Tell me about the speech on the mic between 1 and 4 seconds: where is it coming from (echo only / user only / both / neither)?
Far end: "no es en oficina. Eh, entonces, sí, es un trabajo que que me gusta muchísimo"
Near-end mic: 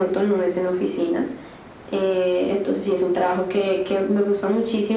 echo only